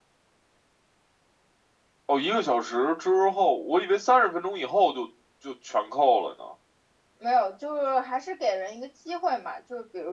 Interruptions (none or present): none